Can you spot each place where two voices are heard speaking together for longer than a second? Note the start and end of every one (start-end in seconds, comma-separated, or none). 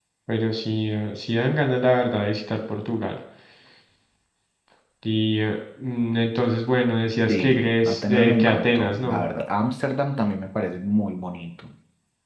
7.3-9.2